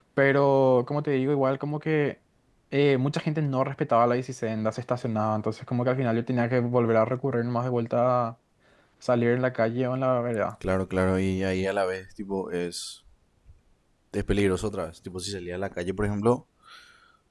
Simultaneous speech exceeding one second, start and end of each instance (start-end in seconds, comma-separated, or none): none